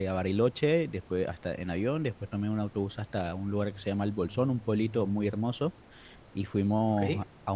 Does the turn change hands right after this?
No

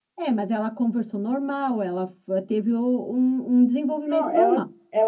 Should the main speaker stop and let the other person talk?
Yes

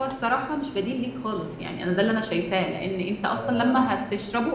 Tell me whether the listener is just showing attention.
Yes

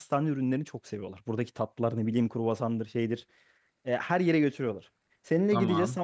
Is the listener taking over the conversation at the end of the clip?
No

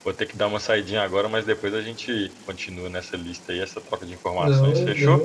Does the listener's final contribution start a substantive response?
Yes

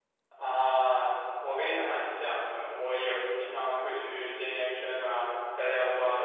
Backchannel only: Yes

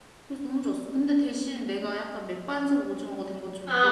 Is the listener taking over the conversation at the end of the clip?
Yes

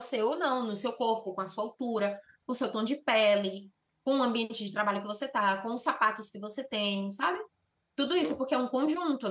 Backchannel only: Yes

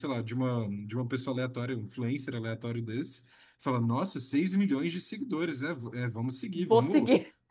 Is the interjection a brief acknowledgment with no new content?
Yes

